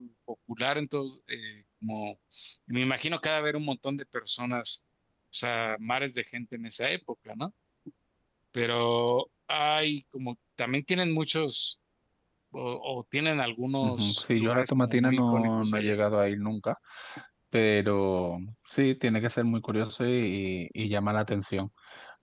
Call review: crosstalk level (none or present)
present